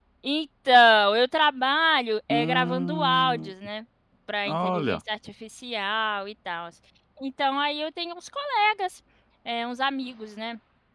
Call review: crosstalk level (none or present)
present